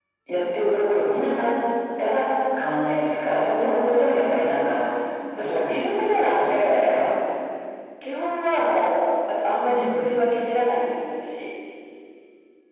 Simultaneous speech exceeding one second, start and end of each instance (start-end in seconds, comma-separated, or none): 5.4-6.9